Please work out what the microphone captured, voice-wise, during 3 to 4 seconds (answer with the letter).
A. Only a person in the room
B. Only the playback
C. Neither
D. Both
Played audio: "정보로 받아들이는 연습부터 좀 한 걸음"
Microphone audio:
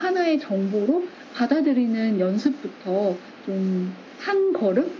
B